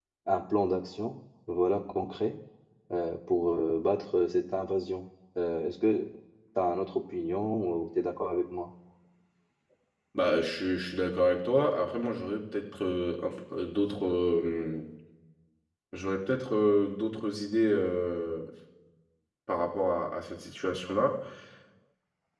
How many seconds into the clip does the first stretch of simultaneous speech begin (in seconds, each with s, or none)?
none